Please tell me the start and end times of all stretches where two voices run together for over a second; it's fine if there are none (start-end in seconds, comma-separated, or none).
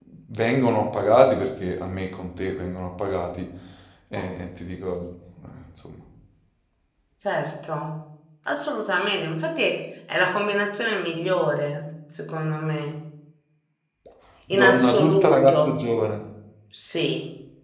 14.5-15.8